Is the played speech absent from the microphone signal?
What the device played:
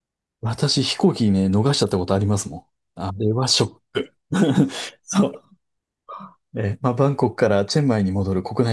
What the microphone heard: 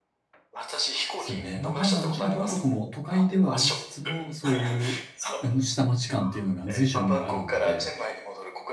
No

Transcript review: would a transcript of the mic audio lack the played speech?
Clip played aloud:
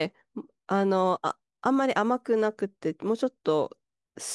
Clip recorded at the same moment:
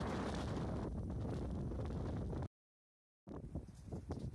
Yes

